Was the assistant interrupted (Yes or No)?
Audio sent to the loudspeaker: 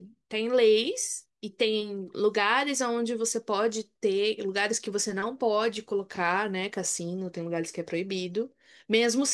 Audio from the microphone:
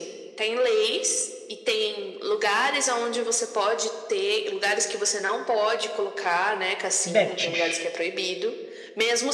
Yes